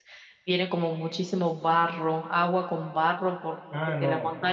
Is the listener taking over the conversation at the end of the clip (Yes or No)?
Yes